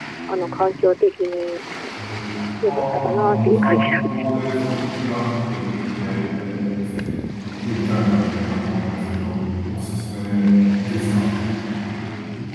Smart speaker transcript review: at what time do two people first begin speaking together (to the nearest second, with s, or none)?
3 s